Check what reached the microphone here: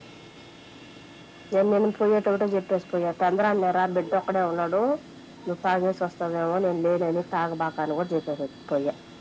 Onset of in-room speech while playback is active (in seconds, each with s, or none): none